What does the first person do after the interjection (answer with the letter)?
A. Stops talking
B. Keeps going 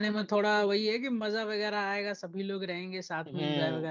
A